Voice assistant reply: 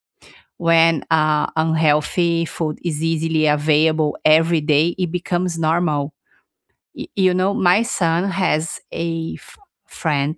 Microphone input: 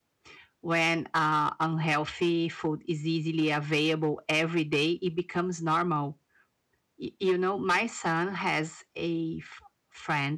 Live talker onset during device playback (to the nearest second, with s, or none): none